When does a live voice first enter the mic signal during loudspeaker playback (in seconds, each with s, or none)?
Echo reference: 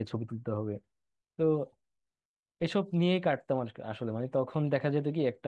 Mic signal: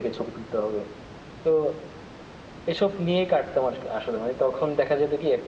none